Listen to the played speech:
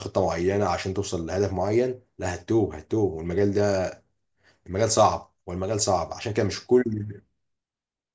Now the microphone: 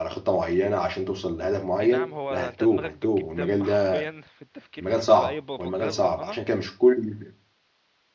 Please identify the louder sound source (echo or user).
echo